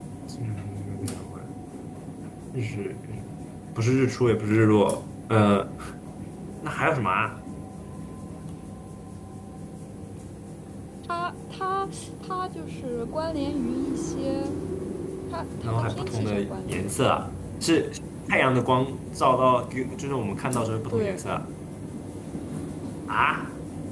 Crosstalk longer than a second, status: present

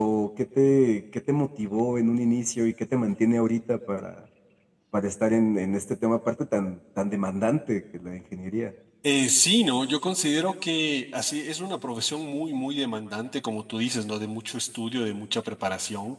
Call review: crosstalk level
none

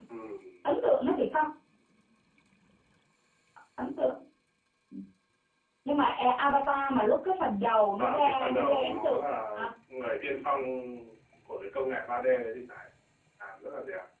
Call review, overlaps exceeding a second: present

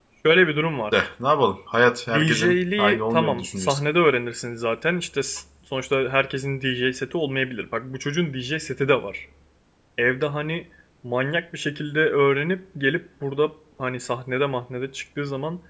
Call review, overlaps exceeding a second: present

